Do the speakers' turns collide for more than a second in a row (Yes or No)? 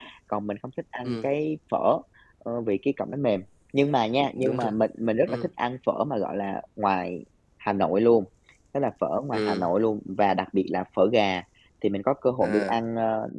No